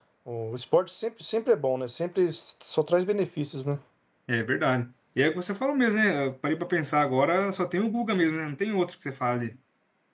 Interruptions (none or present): none